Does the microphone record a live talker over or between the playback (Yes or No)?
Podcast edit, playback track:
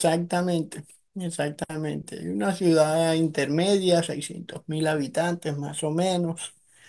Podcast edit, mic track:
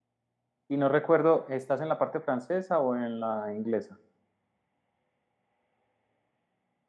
Yes